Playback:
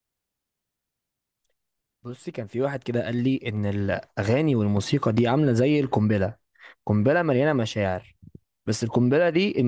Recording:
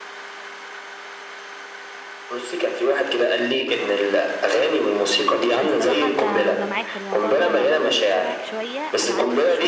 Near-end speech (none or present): present